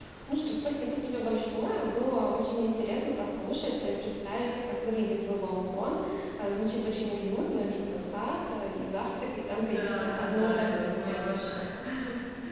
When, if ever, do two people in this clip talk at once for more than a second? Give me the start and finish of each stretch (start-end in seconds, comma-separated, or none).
9.5-11.3